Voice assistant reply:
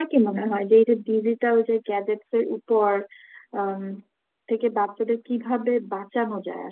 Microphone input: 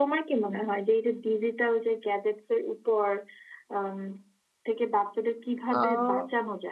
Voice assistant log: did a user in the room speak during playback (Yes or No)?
Yes